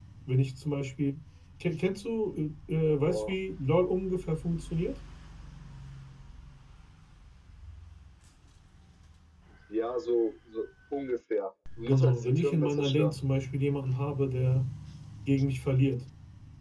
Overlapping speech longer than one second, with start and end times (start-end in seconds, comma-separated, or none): 11.8-13.1